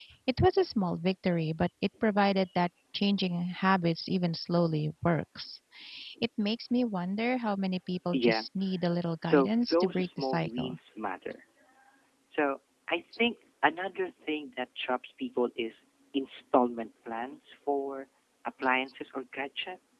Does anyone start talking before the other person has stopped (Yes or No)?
Yes